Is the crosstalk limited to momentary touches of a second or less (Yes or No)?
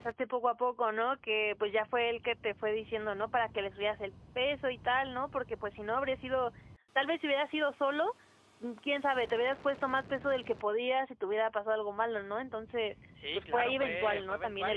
No